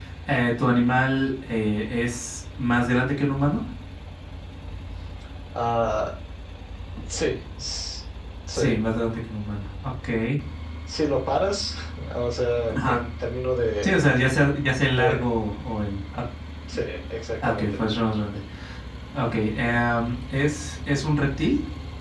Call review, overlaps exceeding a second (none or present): none